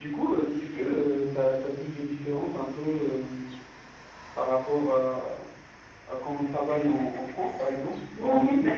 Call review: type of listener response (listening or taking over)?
taking over